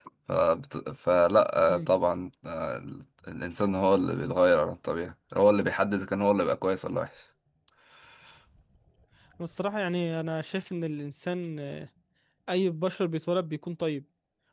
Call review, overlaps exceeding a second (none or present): none